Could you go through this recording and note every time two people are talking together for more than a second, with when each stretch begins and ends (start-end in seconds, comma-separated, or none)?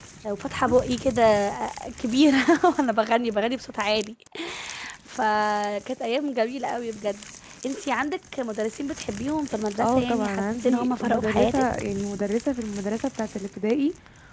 9.8-11.6